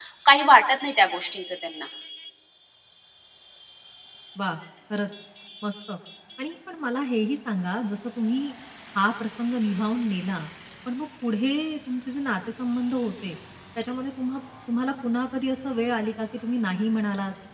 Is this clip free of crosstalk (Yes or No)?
Yes